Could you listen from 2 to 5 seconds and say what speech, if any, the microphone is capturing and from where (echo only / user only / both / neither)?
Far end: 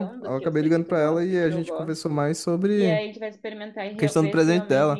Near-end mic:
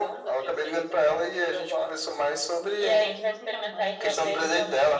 both